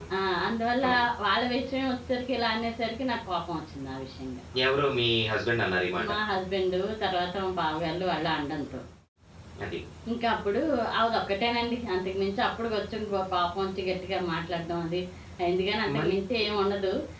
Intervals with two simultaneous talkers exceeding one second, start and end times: none

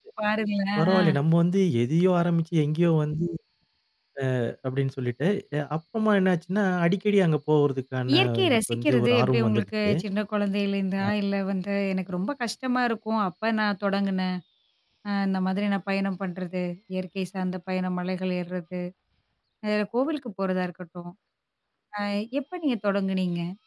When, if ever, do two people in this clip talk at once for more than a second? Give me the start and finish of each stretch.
8.1-9.9

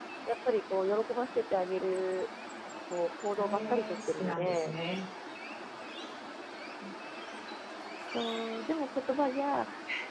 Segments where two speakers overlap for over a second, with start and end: 3.4-4.7

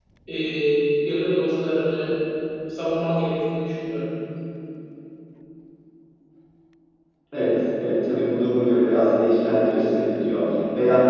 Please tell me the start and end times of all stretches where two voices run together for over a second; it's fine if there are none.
none

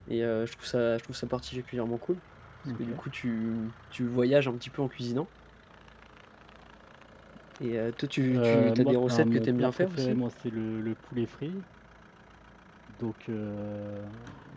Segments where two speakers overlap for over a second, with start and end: 8.3-10.2

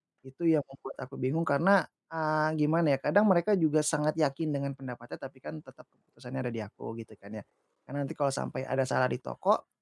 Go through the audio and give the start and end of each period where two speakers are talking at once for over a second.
none

